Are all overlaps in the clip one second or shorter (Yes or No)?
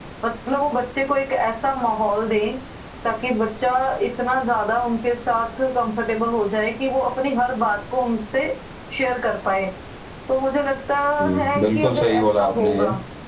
No